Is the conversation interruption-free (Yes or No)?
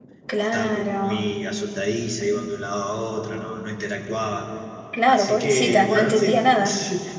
No